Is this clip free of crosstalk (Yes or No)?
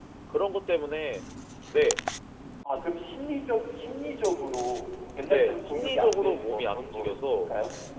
No